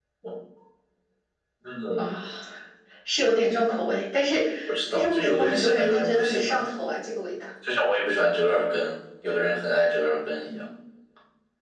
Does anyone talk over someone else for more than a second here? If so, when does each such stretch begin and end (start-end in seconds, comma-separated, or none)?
4.9-6.7